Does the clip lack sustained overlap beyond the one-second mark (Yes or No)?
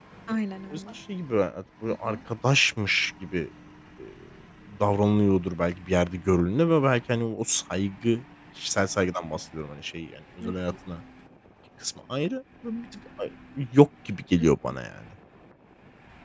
Yes